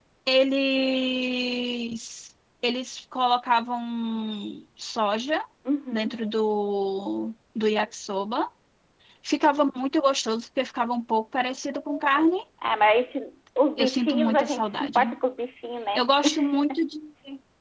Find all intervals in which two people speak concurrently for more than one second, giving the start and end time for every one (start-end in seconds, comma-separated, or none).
13.8-15.0